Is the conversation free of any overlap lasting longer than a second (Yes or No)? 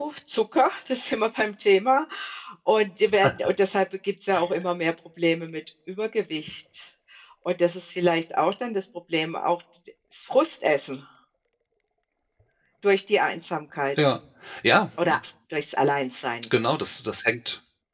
Yes